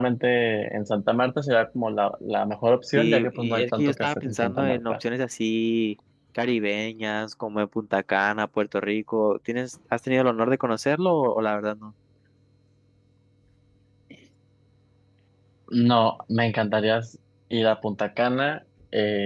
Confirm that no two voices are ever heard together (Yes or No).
No